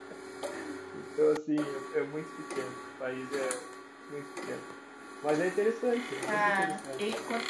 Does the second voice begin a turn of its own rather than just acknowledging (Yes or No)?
Yes